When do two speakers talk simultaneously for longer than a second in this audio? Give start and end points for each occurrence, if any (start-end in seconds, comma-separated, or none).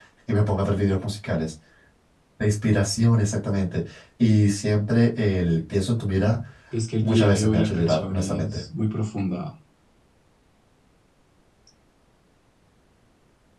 7.0-8.6